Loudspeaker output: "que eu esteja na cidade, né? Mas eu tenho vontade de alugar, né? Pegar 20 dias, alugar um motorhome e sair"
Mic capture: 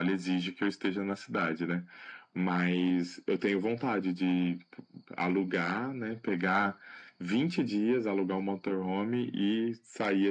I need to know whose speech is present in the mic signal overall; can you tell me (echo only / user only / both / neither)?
echo only